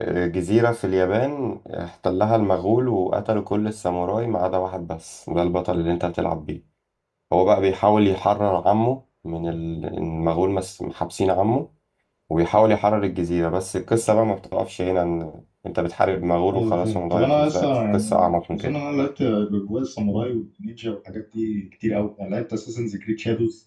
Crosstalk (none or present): present